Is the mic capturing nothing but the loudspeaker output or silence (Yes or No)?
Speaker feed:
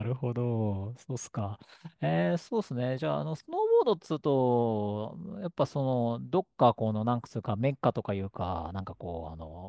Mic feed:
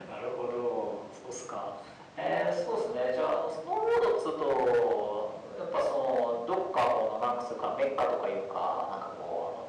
Yes